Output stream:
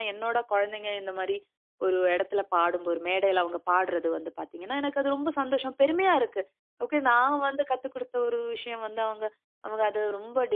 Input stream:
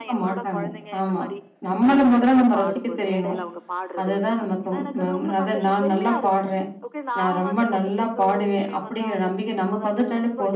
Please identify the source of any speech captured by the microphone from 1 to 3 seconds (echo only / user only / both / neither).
both